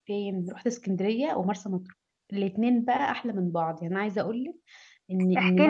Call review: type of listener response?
taking over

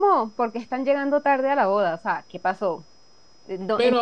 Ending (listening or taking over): taking over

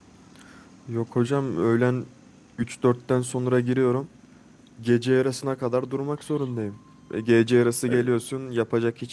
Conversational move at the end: listening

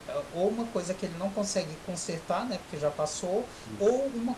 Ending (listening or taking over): listening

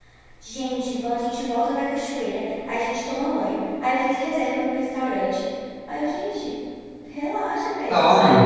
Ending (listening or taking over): listening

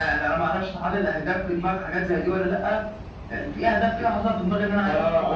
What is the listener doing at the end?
taking over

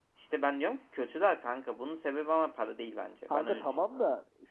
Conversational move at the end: taking over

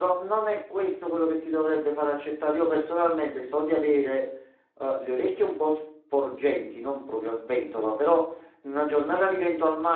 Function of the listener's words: listening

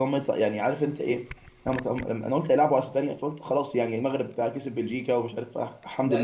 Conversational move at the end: taking over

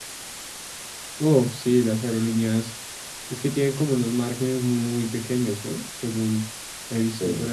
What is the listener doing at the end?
taking over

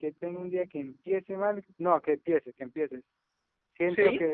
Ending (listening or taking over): listening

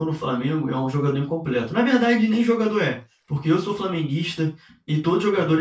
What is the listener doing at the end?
listening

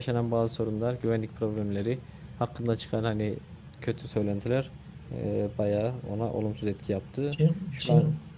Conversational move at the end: taking over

